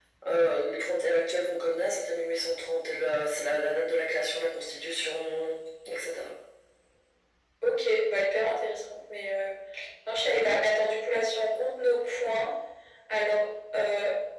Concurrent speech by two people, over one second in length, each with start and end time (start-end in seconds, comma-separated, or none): none